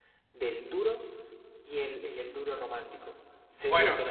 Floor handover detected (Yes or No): No